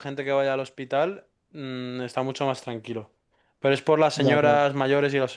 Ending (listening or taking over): listening